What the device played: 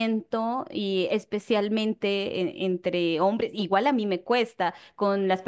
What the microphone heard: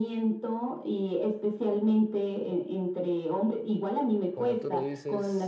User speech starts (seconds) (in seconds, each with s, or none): 4.3 s